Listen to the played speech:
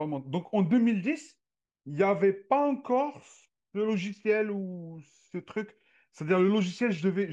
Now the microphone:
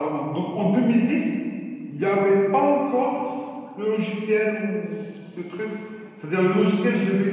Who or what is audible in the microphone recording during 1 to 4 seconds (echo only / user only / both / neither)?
echo only